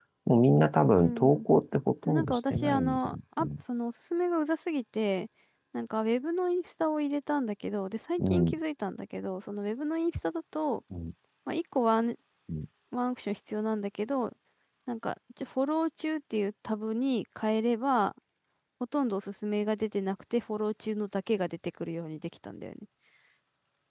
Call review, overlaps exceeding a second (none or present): present